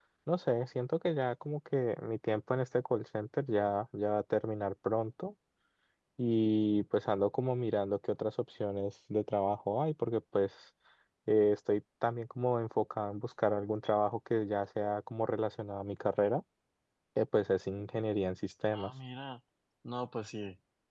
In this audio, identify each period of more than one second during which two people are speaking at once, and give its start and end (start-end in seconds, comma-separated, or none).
none